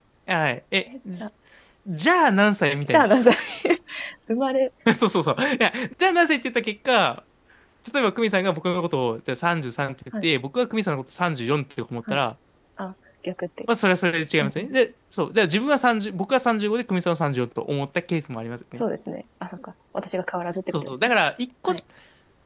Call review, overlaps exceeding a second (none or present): none